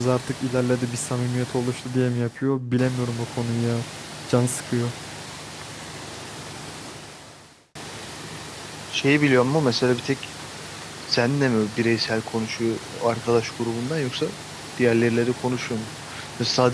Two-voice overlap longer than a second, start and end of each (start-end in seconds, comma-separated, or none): none